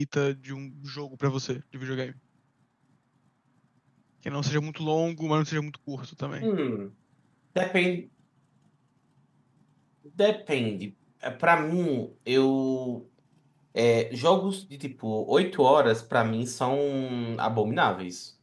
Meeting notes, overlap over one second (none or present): none